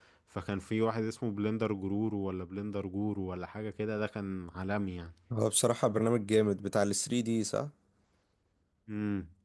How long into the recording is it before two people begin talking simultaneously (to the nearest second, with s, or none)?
none